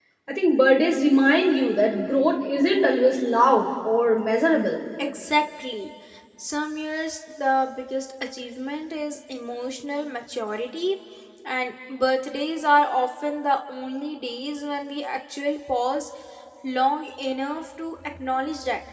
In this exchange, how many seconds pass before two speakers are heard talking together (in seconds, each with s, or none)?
none